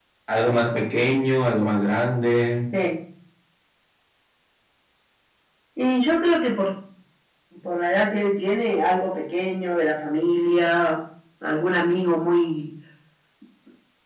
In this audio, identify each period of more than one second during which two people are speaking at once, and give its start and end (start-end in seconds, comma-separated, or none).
none